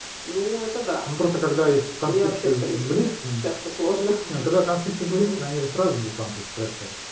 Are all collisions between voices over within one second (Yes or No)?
No